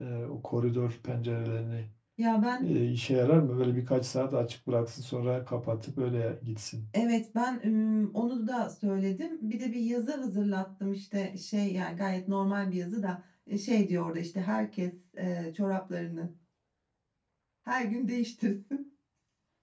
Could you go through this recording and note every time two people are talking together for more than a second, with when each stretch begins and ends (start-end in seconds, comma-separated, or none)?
none